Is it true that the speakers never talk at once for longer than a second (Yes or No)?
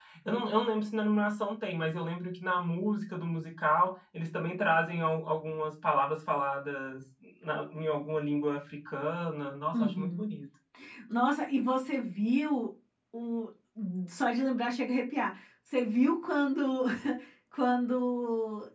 Yes